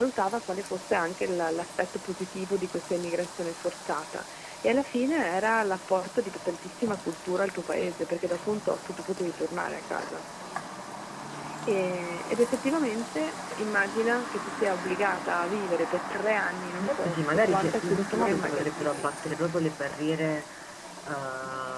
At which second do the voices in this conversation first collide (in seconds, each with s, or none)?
16.8 s